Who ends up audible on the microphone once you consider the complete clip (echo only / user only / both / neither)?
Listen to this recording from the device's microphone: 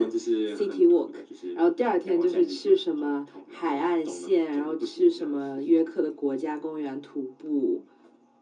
echo only